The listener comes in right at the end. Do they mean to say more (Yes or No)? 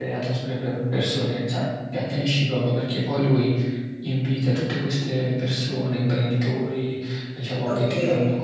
No